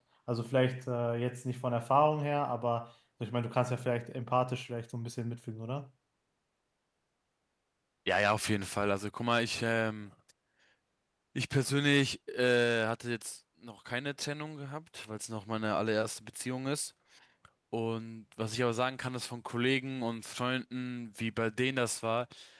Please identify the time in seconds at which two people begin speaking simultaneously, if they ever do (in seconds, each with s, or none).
none